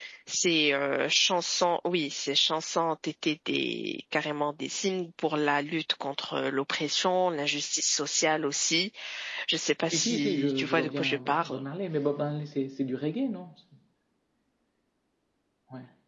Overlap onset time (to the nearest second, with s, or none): 10 s